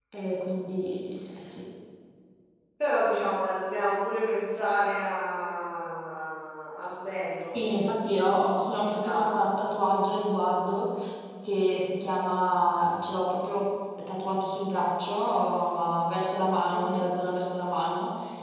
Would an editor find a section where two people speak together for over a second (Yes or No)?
No